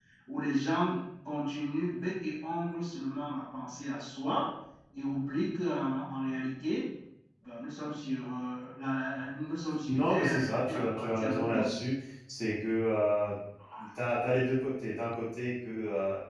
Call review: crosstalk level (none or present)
present